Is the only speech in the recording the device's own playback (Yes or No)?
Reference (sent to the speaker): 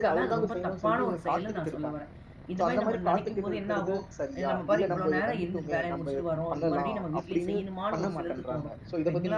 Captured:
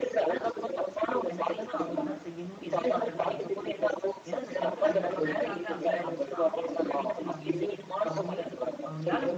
No